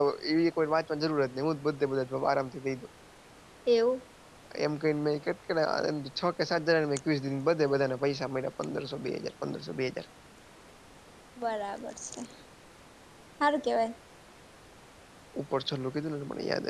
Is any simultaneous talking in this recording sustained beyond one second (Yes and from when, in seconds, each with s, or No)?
No